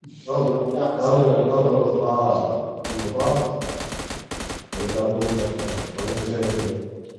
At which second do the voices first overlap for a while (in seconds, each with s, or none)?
0.9 s